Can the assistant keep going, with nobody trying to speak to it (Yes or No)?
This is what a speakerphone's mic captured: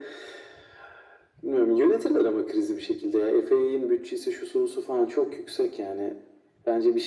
Yes